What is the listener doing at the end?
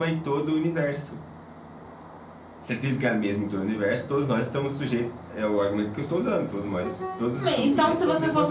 taking over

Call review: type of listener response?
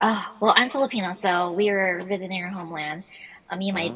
listening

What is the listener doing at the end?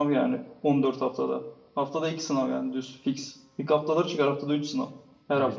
taking over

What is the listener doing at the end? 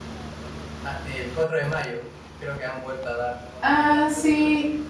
taking over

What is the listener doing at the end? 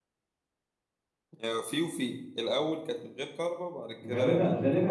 taking over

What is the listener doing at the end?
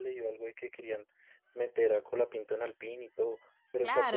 taking over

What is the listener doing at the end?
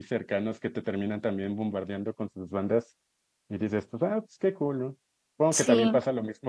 listening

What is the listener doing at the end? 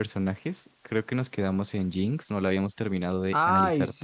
taking over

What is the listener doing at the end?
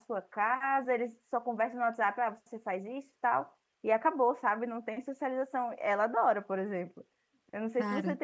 listening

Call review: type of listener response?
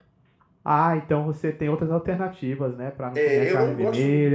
taking over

